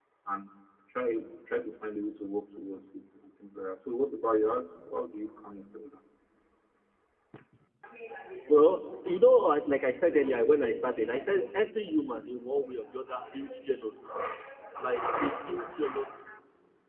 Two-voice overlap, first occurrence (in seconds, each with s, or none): none